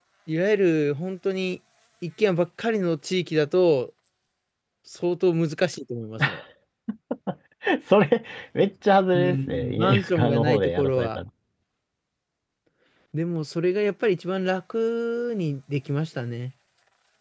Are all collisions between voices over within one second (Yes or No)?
No